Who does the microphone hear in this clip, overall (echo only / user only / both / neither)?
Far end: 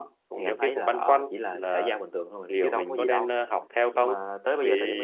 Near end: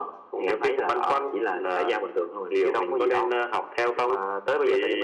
echo only